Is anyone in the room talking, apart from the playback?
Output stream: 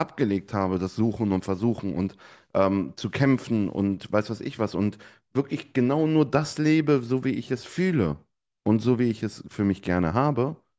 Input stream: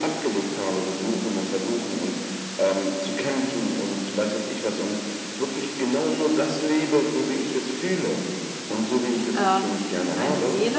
Yes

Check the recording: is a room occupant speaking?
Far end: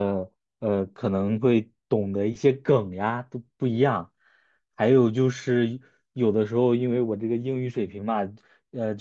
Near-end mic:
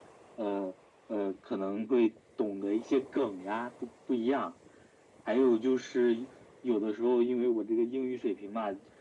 No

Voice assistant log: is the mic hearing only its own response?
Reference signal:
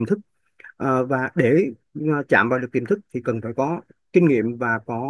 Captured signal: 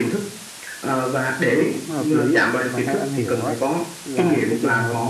No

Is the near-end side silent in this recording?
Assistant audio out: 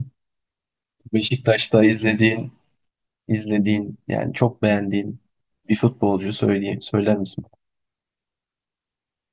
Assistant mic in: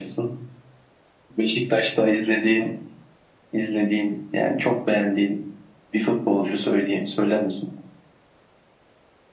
Yes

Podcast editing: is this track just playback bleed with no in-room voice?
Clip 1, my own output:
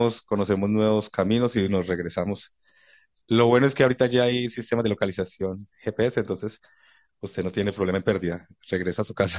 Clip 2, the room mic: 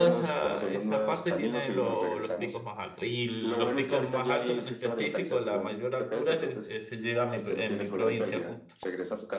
No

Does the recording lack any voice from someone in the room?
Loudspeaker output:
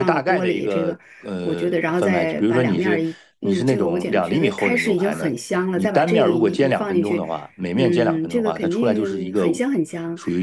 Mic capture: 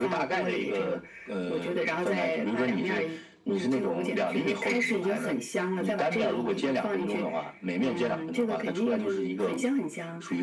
Yes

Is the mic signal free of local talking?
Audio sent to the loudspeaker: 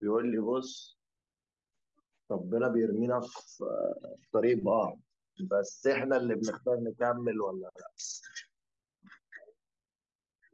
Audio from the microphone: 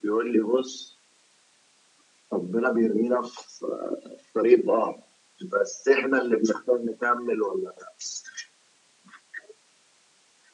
Yes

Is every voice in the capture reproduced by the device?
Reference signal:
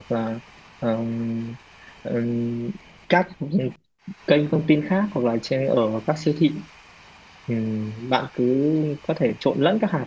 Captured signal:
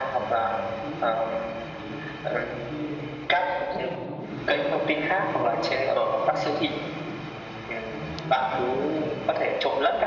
No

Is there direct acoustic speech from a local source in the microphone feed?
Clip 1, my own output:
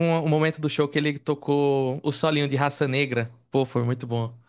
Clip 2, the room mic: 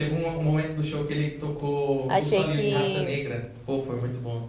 Yes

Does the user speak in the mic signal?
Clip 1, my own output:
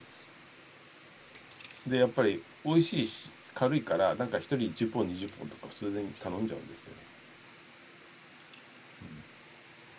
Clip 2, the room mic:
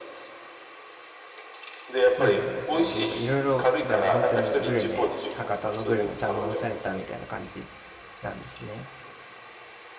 Yes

